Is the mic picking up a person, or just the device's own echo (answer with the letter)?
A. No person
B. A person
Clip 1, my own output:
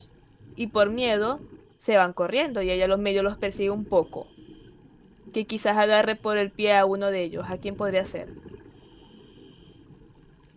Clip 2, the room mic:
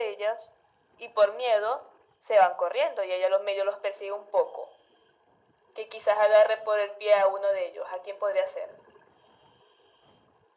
A